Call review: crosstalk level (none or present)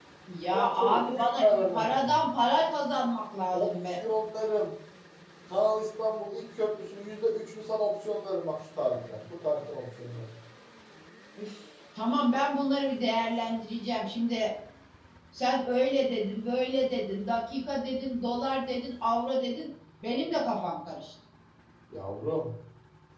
present